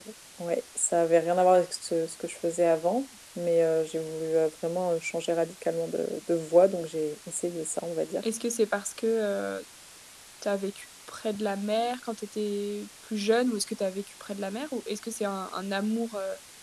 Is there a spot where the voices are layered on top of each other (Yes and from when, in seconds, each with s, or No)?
No